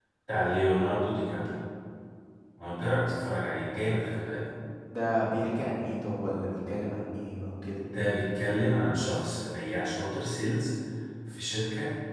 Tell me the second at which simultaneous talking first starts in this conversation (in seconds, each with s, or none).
none